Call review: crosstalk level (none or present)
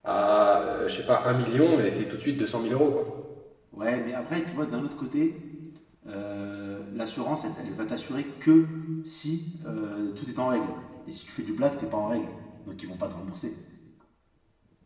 none